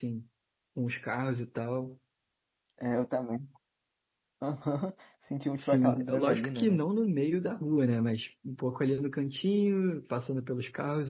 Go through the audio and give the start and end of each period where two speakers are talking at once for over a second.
5.6-6.8

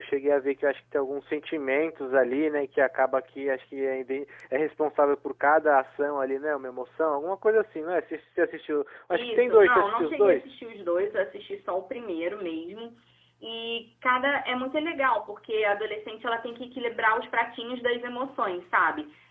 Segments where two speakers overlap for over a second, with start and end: 9.1-10.5

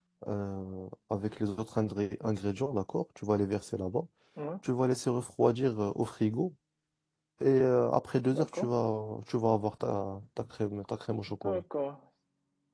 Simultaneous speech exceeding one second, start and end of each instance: none

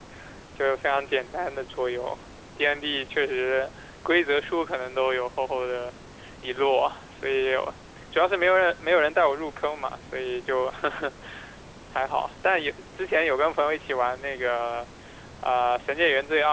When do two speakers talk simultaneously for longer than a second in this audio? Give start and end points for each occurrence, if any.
none

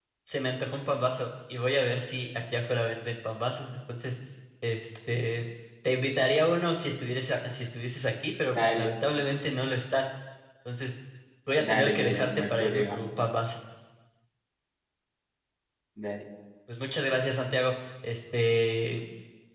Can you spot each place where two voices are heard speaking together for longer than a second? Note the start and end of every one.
11.6-13.0

